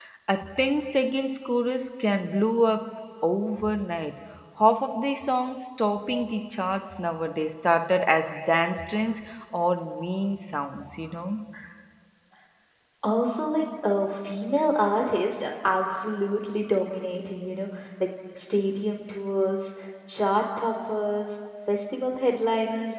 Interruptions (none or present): none